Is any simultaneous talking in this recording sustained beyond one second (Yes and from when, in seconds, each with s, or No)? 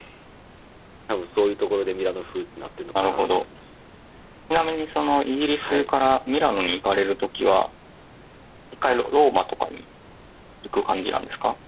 No